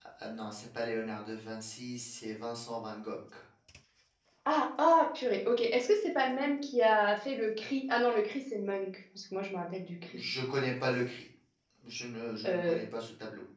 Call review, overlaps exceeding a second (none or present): none